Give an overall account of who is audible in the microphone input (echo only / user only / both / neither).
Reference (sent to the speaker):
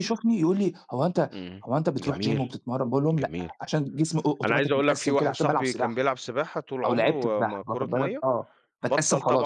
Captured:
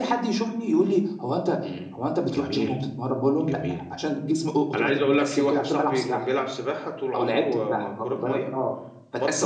echo only